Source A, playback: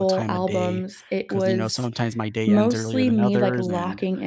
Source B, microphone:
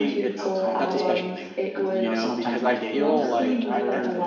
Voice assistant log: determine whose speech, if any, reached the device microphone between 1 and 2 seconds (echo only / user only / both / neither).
both